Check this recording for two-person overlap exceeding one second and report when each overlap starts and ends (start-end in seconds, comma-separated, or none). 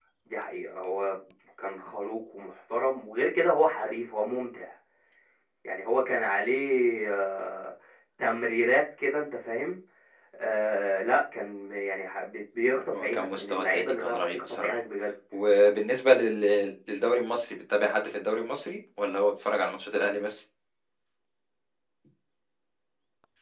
12.9-14.8